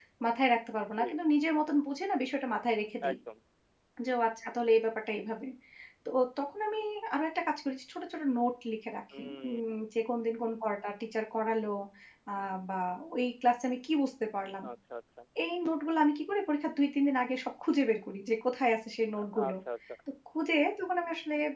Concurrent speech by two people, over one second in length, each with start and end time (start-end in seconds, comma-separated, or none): none